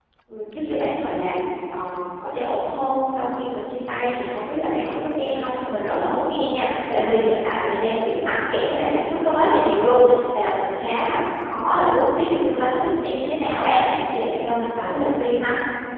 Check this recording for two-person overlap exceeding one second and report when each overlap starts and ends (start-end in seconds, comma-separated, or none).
none